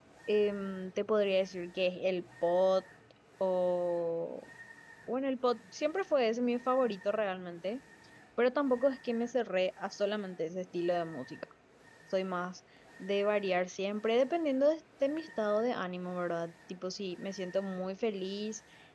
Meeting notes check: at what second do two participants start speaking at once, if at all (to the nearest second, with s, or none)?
none